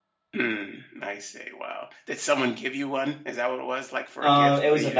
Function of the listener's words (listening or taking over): taking over